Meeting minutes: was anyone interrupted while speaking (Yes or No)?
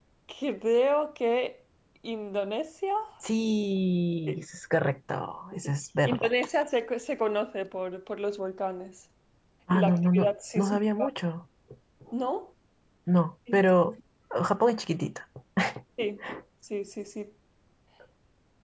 Yes